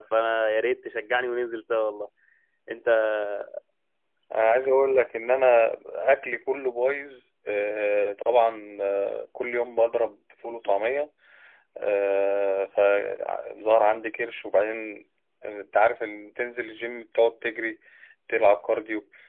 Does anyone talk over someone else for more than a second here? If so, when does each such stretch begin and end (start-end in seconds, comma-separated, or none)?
none